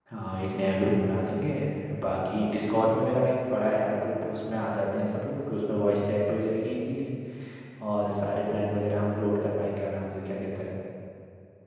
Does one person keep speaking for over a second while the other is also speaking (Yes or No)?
No